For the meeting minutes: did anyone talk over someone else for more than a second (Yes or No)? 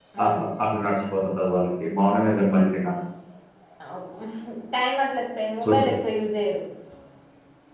No